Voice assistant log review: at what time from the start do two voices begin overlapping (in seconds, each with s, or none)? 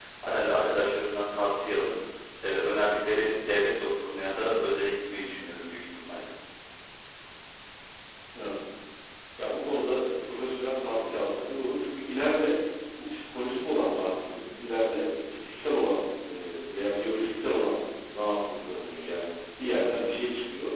none